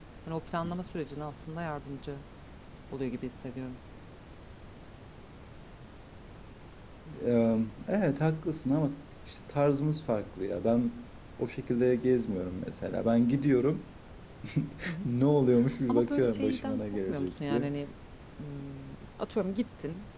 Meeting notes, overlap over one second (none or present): present